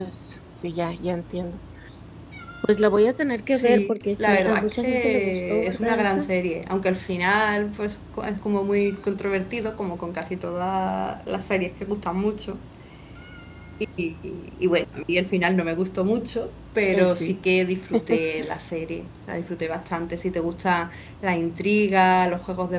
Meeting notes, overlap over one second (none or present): present